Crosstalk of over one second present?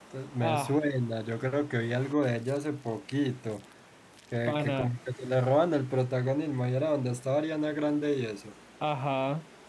No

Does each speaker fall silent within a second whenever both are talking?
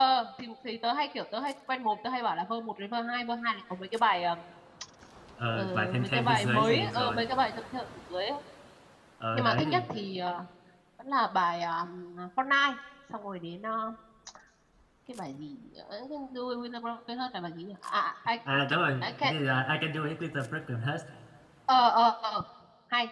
No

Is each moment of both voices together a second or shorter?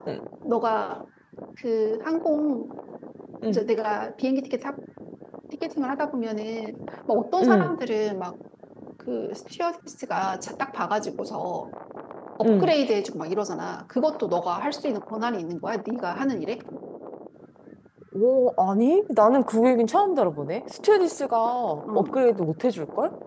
Yes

